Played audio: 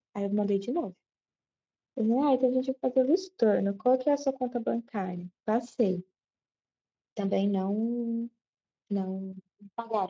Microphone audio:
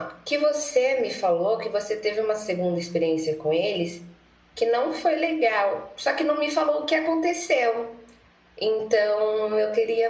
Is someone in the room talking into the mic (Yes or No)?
Yes